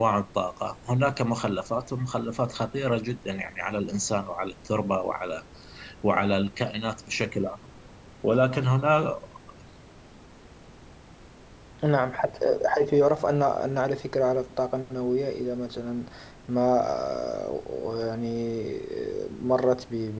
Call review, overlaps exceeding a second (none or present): none